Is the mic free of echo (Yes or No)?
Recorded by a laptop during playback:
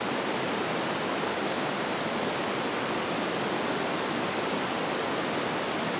Yes